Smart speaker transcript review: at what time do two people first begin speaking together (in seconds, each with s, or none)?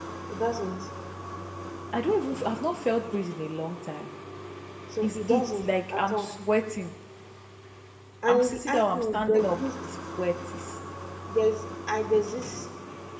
5.0 s